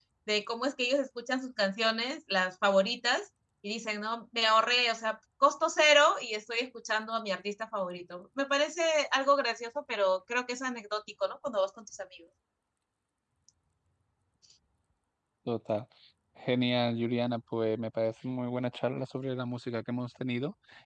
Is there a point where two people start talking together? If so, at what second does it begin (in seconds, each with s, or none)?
none